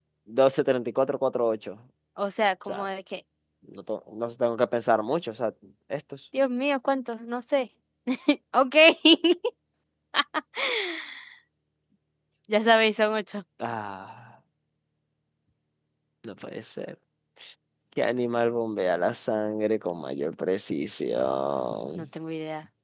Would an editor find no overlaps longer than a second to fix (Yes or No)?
Yes